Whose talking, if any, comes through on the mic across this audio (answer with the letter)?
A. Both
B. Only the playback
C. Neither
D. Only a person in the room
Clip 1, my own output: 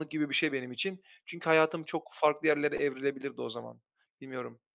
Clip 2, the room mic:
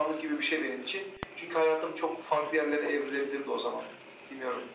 B